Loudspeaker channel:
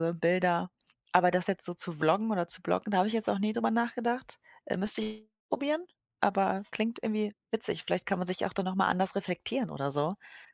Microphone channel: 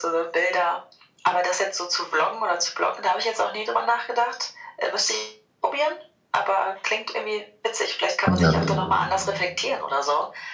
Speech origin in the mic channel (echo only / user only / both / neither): both